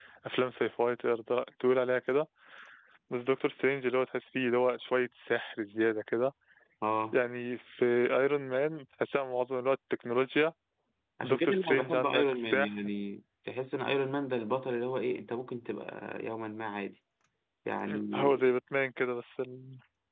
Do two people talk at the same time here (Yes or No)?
Yes